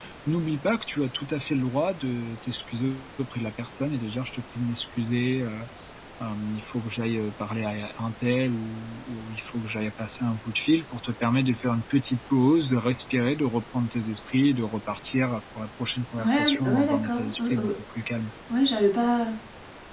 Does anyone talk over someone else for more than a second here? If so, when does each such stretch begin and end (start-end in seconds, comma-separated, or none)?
16.2-17.7